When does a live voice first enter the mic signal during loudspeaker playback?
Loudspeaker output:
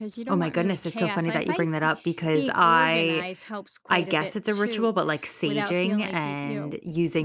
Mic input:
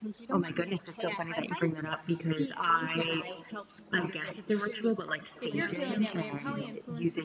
5.4 s

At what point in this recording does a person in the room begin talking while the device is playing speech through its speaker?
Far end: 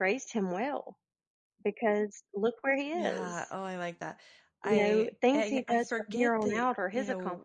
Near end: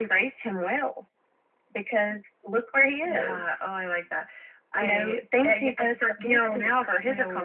none

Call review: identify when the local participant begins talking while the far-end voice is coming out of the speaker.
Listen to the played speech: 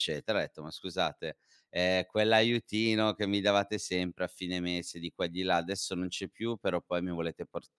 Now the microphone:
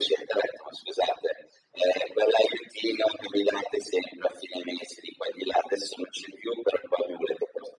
none

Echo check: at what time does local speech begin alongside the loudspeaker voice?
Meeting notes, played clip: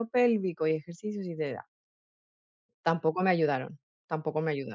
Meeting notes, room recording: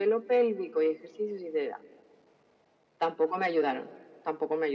none

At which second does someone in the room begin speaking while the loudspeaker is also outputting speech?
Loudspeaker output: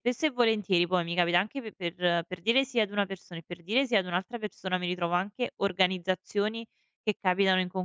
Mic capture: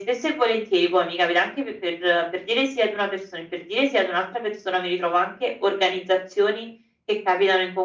none

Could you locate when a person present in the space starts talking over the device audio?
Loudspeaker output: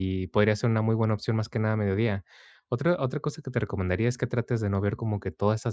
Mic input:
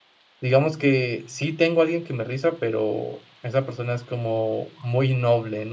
0.4 s

